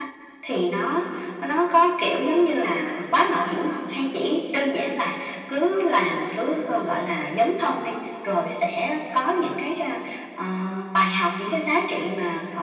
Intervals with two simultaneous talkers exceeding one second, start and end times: none

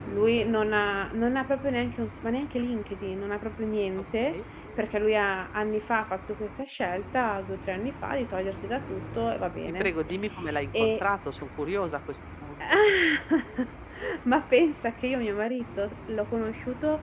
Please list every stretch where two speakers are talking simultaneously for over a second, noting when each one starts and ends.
none

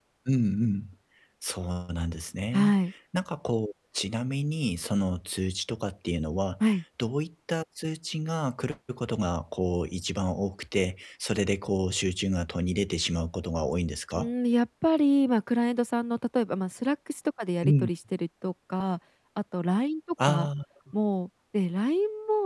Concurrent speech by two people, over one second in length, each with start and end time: none

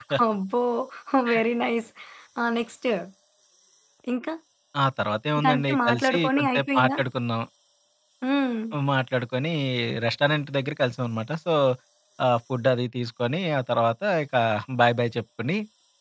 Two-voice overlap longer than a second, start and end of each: 5.4-7.0

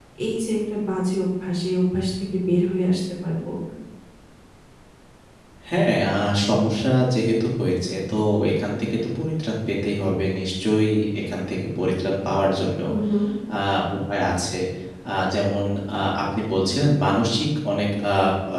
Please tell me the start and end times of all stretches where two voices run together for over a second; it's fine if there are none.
none

